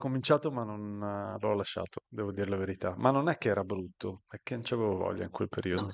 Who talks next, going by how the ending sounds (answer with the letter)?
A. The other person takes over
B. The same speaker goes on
A